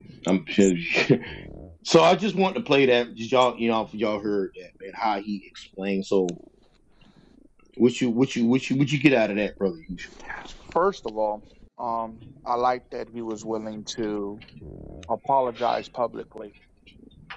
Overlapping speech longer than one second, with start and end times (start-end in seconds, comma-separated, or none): none